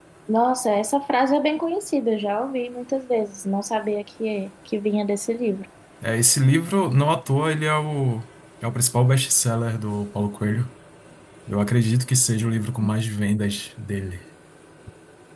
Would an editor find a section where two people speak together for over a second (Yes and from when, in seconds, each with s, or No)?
No